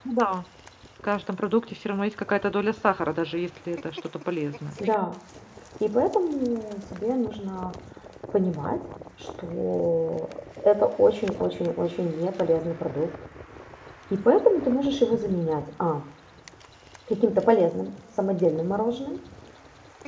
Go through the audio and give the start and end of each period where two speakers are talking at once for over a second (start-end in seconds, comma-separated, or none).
none